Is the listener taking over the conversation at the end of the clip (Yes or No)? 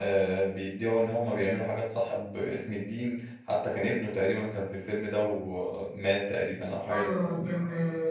Yes